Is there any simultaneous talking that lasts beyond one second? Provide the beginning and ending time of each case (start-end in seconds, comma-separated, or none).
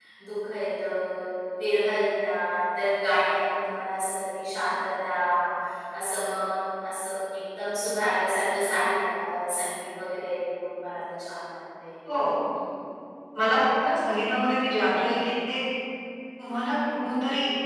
none